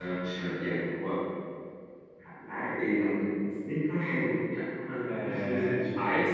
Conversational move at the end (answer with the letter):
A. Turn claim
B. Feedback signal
A